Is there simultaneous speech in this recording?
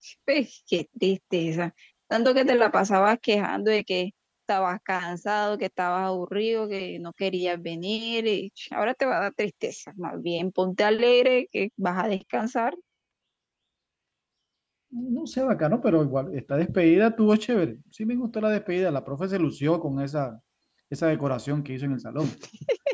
No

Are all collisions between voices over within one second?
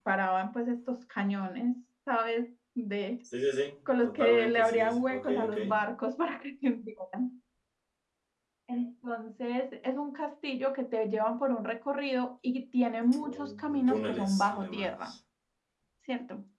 No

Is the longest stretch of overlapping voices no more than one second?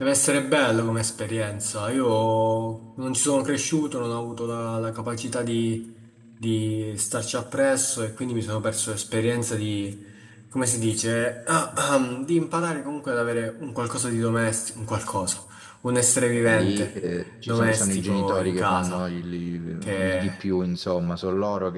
No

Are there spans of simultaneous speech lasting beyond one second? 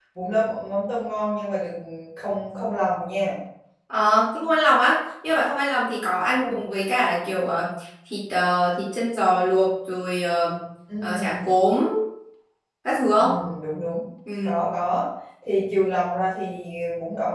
No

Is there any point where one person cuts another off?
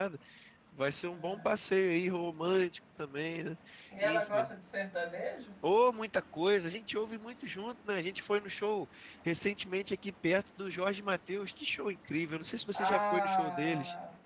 Yes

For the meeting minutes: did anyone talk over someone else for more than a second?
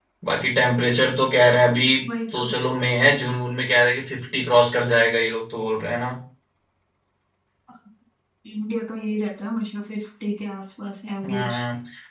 No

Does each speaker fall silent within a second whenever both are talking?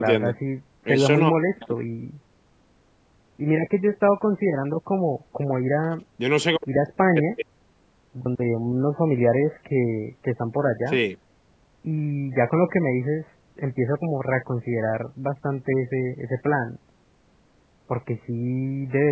Yes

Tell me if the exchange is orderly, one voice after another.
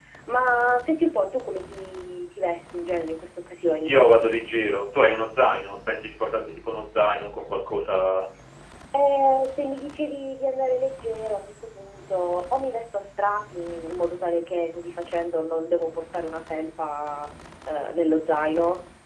Yes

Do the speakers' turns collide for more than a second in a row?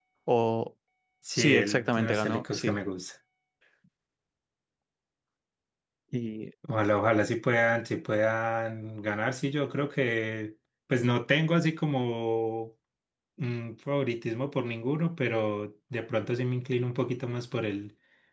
Yes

